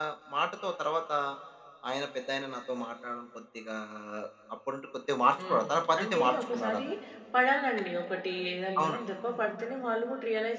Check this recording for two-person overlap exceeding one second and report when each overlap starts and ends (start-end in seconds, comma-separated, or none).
5.4-6.8